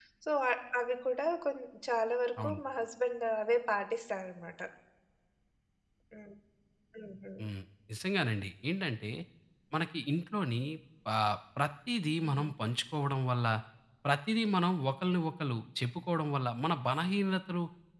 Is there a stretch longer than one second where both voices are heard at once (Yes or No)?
No